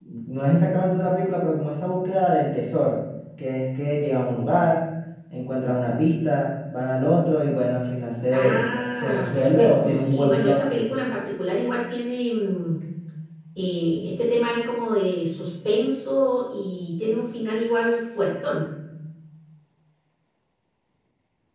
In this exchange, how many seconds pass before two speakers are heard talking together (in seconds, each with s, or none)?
8.3 s